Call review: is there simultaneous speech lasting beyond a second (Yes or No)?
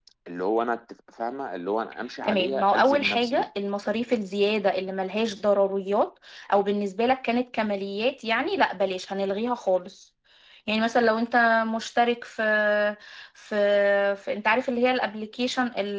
Yes